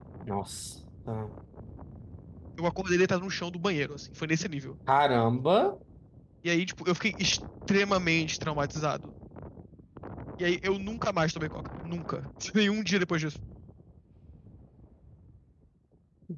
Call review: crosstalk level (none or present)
none